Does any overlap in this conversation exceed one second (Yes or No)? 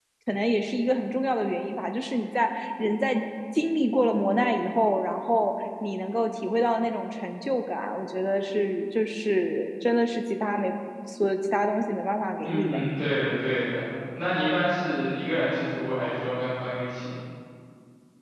No